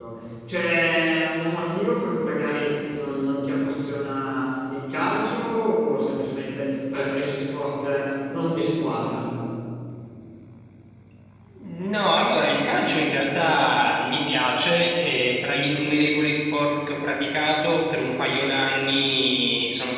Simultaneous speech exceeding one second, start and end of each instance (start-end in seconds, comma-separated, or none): none